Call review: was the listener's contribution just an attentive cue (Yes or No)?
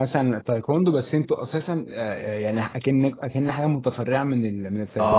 No